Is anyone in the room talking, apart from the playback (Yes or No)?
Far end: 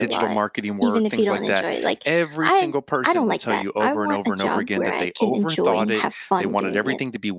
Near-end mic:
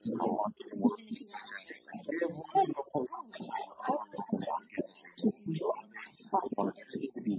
No